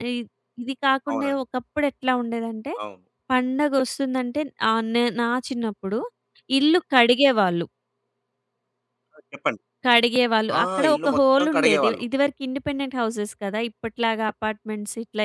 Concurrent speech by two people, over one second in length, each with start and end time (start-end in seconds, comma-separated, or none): 10.6-12.0